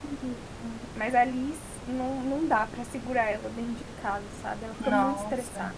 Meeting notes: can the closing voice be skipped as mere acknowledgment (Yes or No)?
No